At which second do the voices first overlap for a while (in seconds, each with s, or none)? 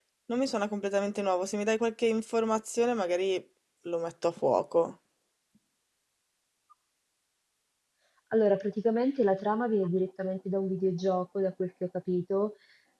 none